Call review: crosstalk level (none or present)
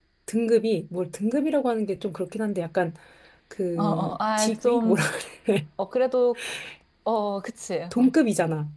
present